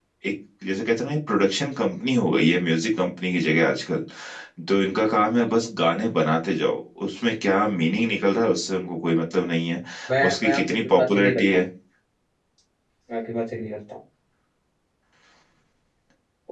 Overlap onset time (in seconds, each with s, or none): 10.3 s